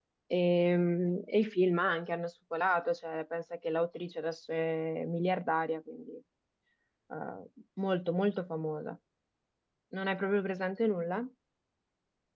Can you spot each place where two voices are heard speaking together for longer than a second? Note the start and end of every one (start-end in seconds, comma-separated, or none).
none